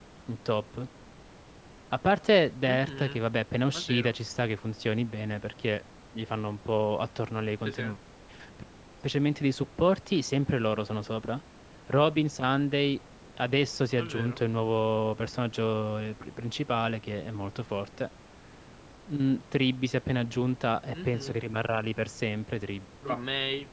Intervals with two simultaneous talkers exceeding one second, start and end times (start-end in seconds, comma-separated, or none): none